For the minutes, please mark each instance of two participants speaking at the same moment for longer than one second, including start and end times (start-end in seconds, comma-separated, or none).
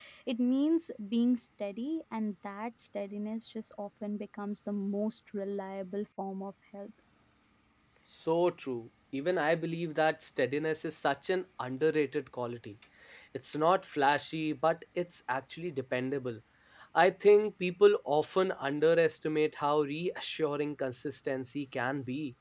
none